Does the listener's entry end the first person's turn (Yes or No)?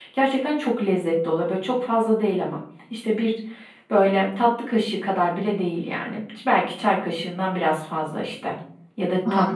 No